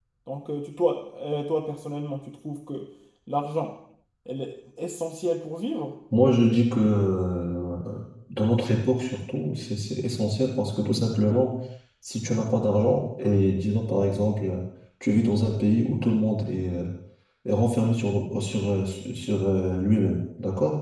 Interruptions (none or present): none